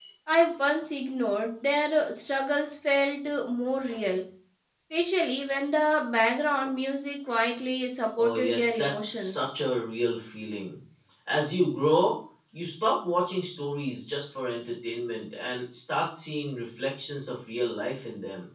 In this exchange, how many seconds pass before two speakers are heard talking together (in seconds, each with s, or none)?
8.2 s